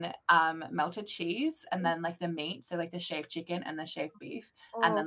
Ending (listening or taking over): listening